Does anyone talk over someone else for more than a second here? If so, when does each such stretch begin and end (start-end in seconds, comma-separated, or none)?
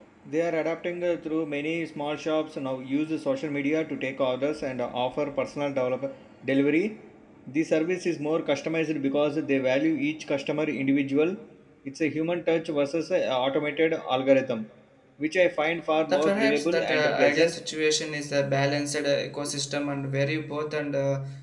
16.1-17.5